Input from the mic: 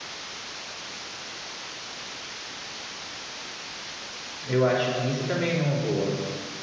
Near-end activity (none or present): present